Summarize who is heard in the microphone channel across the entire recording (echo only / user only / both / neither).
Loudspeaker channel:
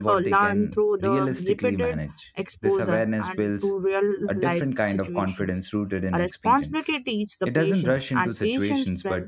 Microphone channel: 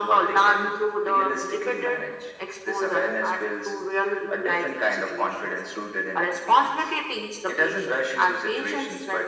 echo only